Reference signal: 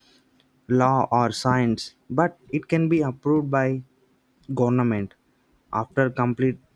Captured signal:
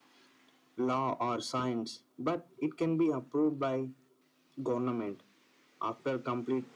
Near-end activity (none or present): none